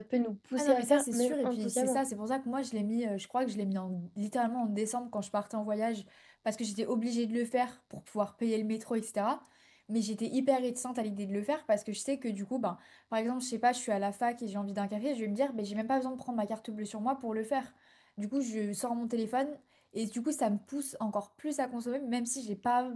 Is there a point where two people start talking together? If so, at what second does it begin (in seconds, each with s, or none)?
0.6 s